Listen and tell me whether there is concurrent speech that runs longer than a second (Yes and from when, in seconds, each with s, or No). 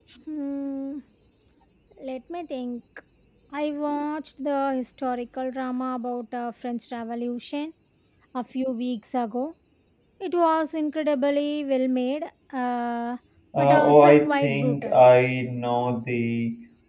Yes, from 13.6 s